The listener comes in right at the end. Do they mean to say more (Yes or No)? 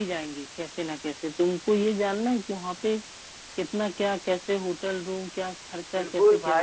Yes